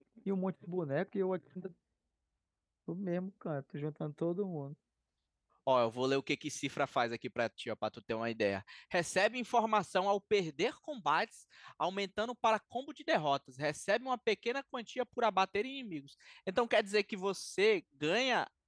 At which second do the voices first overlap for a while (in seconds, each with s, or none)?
none